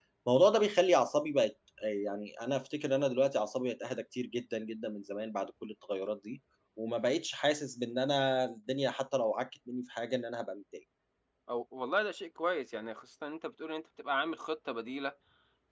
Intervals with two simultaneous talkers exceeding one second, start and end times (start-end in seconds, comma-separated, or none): none